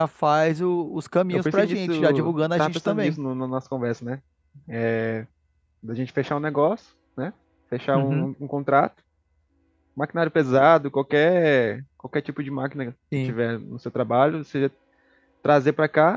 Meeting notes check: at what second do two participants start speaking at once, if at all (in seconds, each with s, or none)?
1.3 s